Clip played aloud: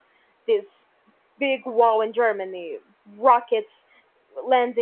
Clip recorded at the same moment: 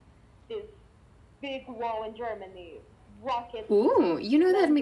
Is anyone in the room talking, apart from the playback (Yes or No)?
Yes